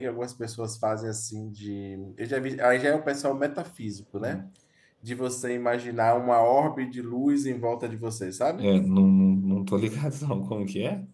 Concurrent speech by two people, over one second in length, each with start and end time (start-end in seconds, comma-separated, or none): none